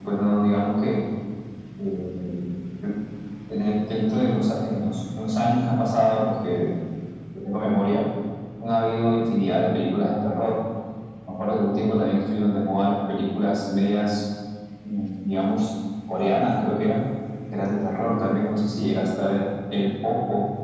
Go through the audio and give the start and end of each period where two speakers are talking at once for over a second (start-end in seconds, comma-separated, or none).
none